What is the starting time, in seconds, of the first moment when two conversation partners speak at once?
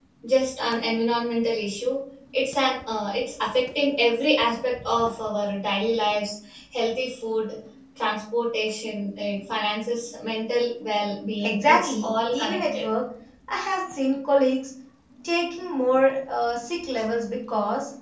11.4 s

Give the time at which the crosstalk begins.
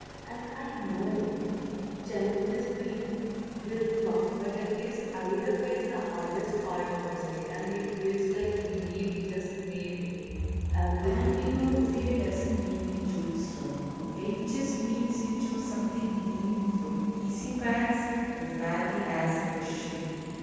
11.0 s

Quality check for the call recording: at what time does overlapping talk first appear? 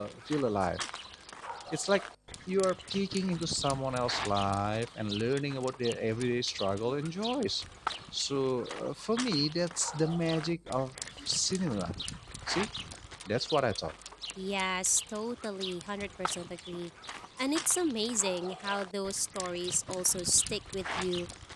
none

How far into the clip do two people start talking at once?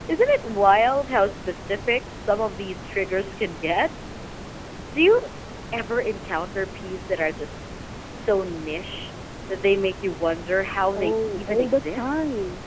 10.9 s

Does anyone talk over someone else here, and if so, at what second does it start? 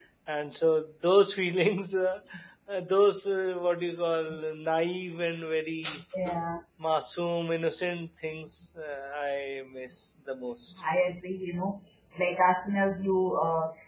none

